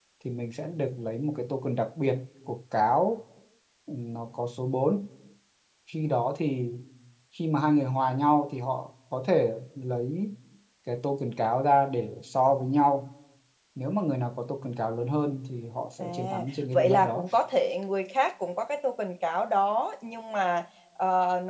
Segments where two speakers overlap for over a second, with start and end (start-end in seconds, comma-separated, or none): 16.0-17.2